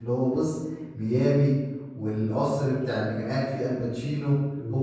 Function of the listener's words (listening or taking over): taking over